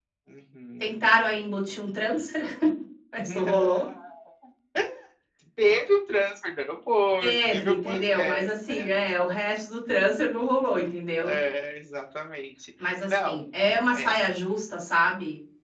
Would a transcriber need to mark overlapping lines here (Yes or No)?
Yes